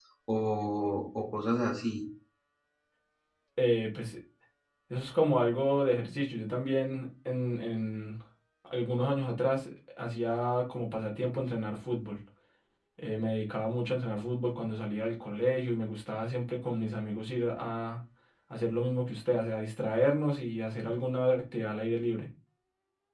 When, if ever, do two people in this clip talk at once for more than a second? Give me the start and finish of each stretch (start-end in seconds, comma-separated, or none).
none